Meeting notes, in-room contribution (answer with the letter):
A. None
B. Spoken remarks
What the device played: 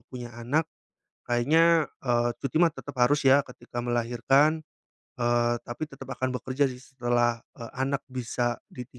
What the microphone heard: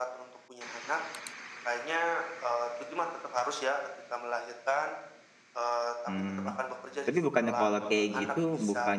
B